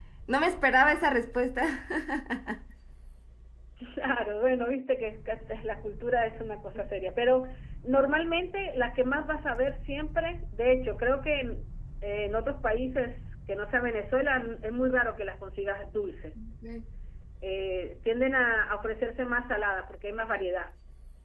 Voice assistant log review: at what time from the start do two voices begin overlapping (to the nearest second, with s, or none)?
none